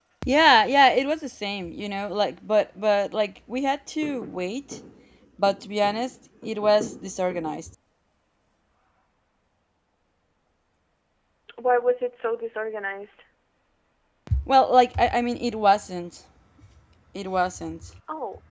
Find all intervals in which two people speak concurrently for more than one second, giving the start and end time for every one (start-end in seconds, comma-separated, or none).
none